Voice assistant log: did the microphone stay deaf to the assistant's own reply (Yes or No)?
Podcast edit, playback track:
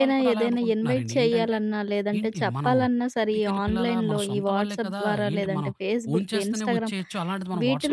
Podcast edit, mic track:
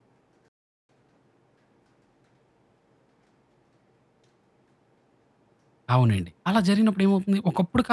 Yes